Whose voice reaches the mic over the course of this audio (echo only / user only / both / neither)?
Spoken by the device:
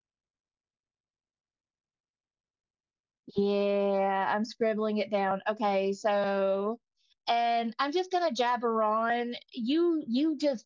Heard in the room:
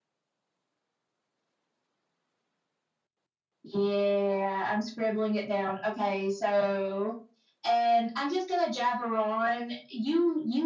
echo only